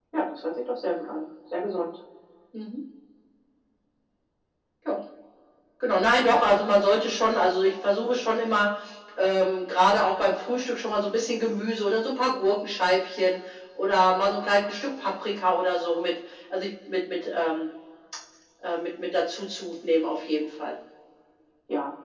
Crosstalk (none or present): none